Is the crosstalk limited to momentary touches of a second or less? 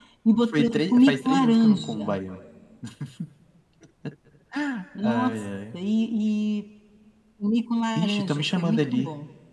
No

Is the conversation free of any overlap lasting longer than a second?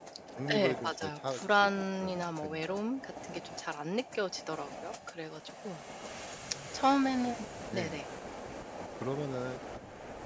No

